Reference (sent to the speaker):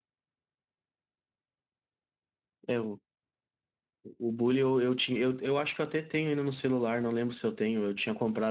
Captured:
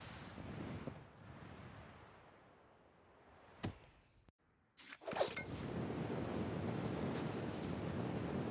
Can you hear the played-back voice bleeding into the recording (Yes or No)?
No